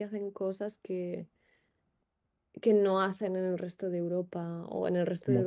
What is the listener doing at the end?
listening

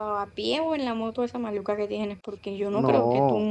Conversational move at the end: listening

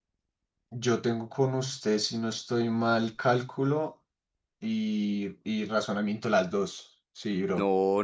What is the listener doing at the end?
taking over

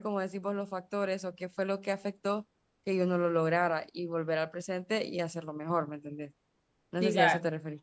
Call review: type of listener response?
taking over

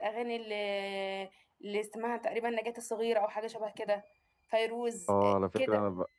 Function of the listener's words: taking over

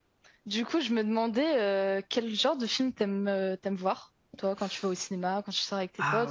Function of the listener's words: taking over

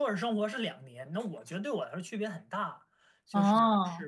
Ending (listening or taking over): listening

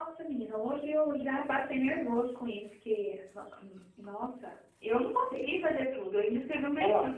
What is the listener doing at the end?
listening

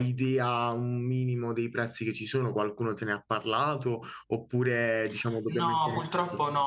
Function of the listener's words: taking over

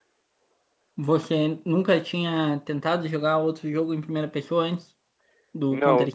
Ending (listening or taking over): taking over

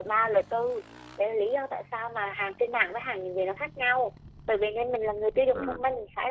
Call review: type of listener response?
listening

